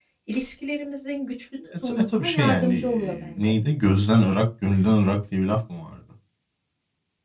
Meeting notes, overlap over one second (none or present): present